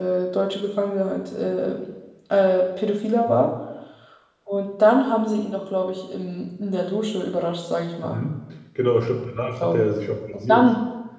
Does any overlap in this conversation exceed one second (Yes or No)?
No